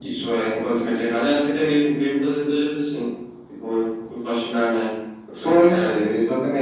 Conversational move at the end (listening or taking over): taking over